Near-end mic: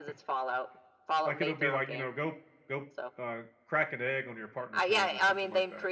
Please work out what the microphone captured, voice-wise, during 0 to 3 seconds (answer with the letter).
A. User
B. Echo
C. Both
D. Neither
C